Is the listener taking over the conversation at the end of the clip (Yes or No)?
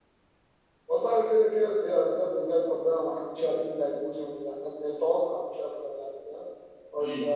No